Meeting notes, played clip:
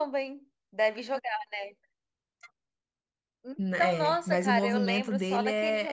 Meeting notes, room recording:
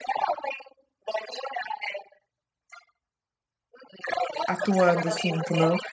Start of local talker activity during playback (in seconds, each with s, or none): 4.5 s